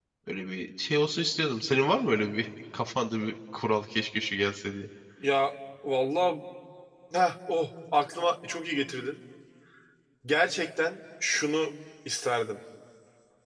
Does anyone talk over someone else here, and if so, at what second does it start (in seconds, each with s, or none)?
none